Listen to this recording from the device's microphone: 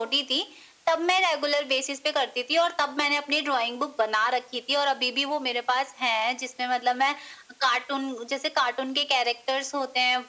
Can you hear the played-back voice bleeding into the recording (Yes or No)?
Yes